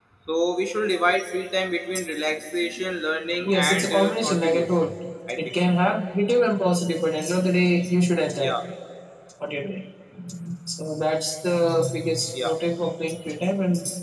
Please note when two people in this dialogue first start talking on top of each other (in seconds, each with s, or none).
3.5 s